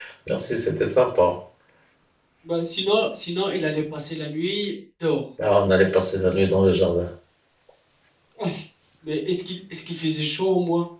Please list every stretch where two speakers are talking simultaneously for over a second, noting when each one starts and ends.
none

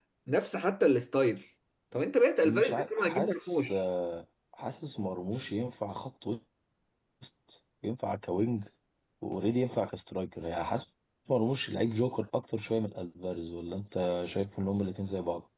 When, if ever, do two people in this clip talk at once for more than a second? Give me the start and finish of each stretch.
2.4-3.7

